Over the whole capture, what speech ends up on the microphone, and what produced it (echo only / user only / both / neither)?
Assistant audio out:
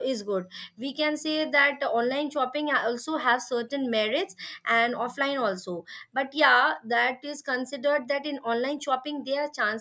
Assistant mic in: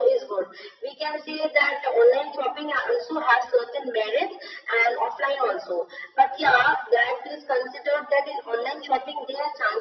echo only